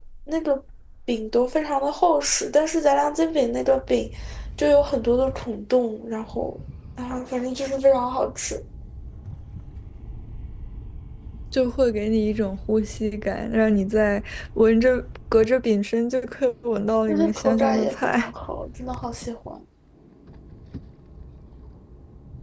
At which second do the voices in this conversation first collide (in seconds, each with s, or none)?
17.1 s